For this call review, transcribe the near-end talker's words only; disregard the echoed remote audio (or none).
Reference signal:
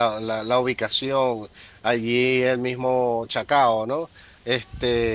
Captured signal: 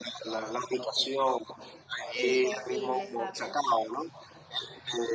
Imposible, exacto.